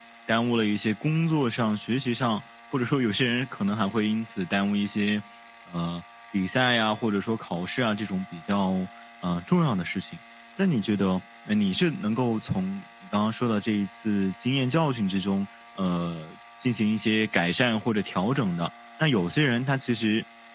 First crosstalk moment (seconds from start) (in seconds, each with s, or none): none